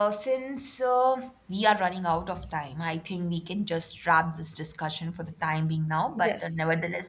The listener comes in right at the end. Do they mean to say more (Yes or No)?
No